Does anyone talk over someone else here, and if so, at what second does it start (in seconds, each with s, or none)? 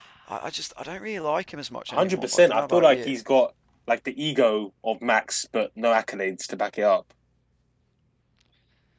1.9 s